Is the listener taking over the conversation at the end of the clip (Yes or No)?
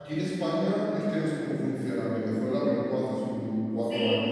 Yes